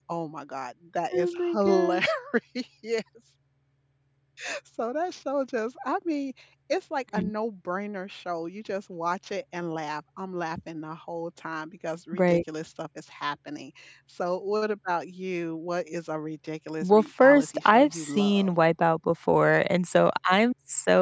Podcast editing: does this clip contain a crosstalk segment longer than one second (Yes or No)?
Yes